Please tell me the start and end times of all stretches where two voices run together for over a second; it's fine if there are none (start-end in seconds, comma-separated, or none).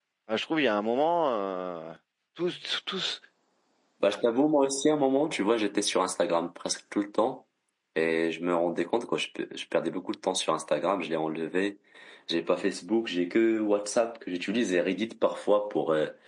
none